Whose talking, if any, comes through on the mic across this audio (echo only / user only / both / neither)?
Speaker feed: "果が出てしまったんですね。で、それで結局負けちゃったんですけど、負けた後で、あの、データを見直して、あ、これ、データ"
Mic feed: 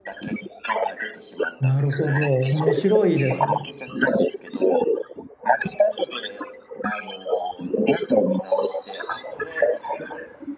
both